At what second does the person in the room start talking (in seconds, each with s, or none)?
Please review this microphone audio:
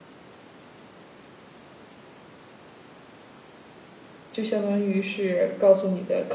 4.3 s